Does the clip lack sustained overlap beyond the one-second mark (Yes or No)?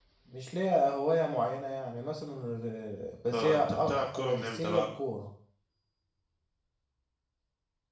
No